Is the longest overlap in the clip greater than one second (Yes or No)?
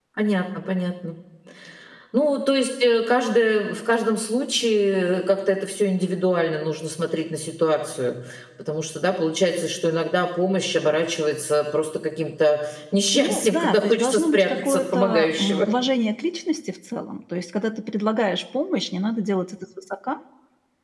Yes